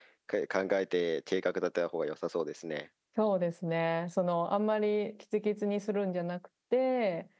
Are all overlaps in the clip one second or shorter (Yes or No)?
Yes